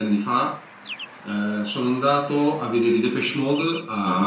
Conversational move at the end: listening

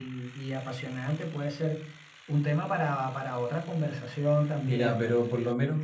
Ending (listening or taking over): taking over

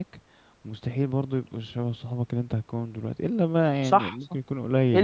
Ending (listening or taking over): taking over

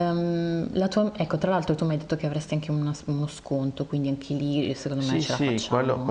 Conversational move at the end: taking over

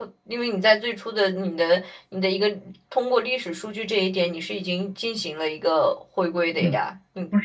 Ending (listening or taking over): taking over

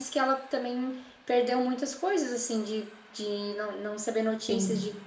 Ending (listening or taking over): listening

